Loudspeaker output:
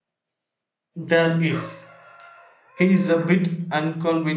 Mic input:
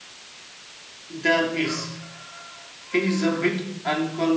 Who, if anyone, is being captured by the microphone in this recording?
echo only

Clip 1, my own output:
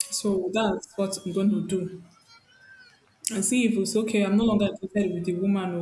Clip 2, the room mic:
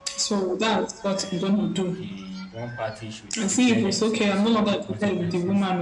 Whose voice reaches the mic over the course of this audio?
both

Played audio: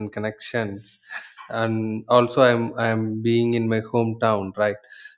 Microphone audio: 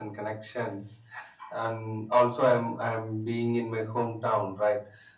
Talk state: echo only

